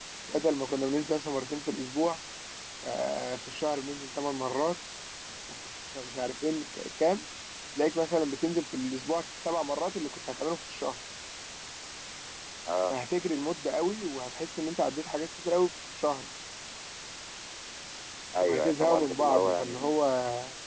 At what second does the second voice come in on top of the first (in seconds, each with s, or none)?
18.5 s